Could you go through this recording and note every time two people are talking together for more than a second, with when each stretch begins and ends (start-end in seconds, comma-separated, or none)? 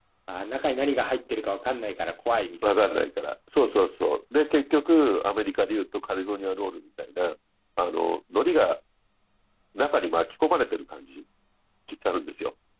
none